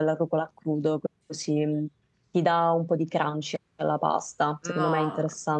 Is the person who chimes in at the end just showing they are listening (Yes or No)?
No